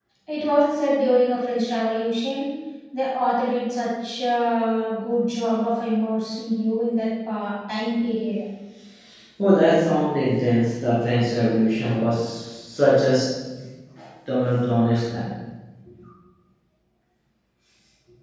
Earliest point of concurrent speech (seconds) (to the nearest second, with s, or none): none